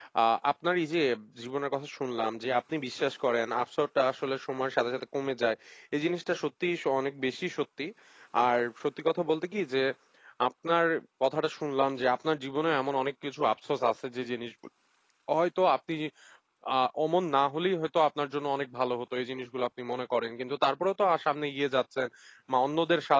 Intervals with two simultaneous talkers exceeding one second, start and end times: none

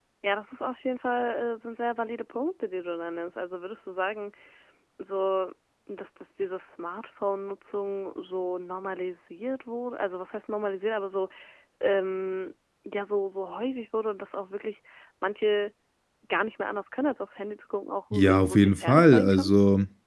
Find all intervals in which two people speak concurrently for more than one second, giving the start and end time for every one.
18.1-19.5

